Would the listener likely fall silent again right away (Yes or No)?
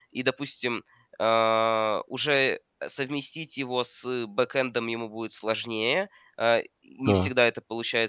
Yes